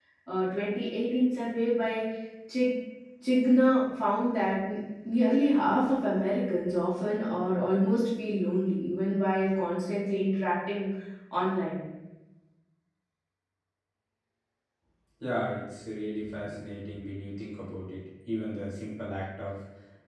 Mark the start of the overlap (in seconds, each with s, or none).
none